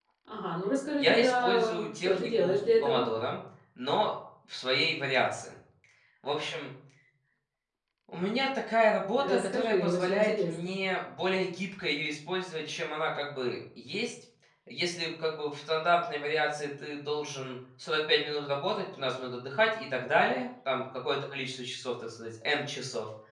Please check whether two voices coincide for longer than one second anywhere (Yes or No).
Yes